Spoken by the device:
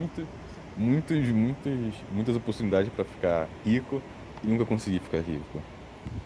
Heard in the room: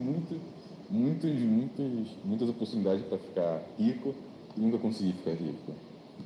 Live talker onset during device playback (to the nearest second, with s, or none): none